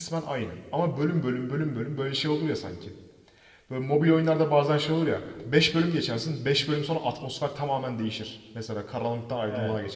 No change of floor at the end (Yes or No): Yes